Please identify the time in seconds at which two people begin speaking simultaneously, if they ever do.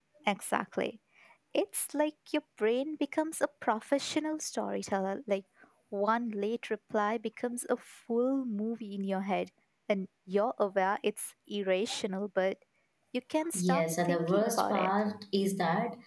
13.5 s

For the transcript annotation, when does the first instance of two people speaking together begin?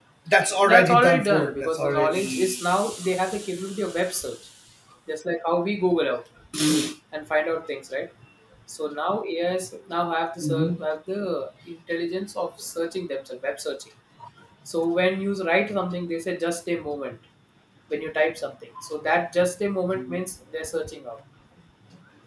0.6 s

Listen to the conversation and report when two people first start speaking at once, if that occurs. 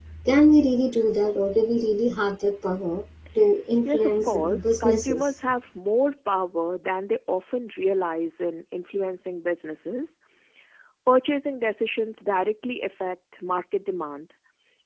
3.9 s

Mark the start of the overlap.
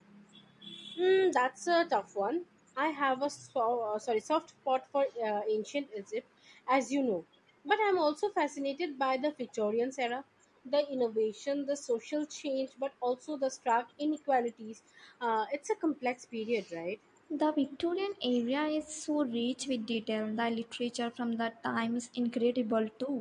none

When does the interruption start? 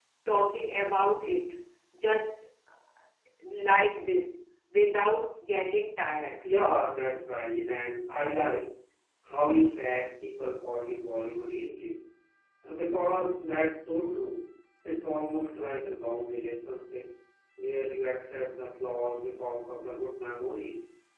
none

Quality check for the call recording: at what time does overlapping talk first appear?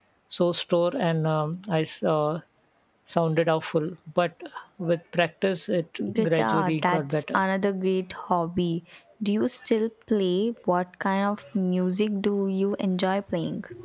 6.0 s

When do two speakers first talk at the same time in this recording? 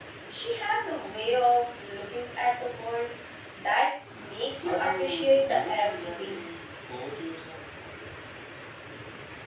4.6 s

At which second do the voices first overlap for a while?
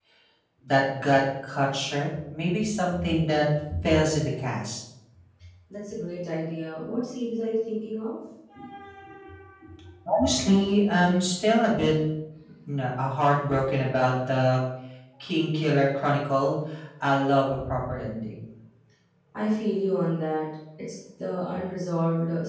none

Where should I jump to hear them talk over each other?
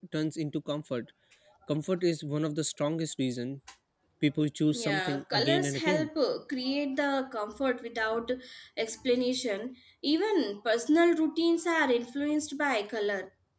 4.7 s

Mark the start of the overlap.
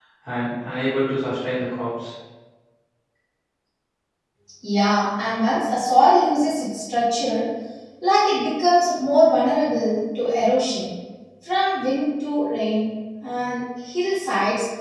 none

